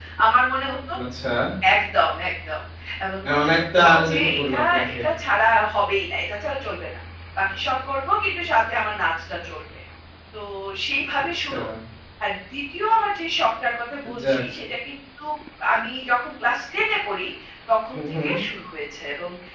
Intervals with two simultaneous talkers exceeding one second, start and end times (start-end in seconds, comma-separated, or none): 3.2-5.0